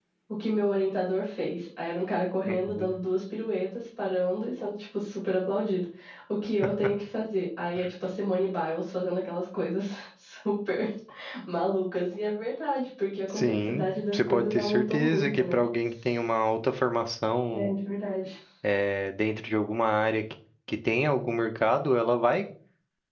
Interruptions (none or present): present